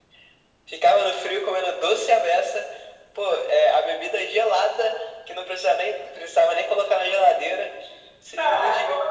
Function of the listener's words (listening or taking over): taking over